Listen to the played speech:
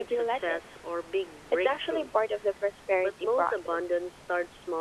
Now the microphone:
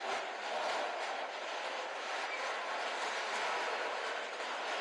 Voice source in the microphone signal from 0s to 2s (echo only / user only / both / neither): neither